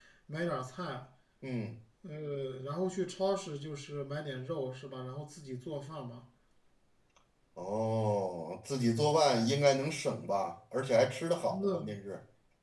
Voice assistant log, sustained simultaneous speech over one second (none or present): none